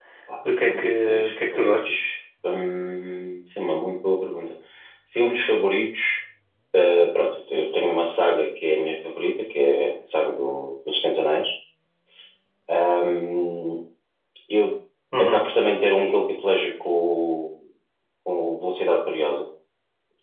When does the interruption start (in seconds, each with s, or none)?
0.6 s